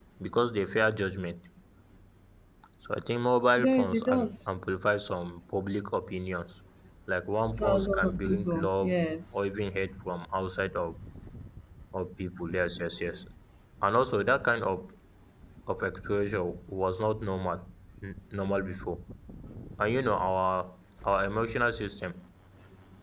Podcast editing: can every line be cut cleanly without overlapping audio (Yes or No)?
No